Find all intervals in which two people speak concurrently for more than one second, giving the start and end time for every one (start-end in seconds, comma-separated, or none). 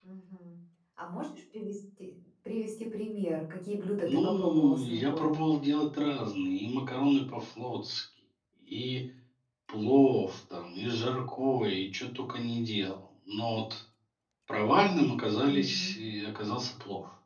4.1-5.3